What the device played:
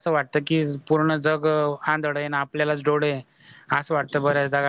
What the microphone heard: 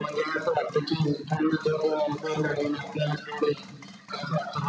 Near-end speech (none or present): present